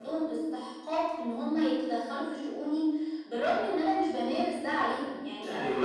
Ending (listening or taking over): taking over